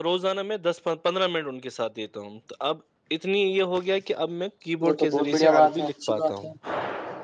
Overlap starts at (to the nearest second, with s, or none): 5 s